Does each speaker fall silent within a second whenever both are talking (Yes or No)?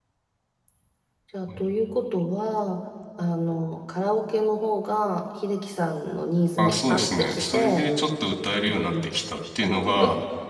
No